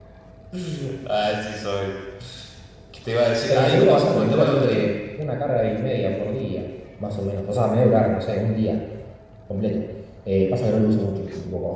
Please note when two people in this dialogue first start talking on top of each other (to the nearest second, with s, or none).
3 s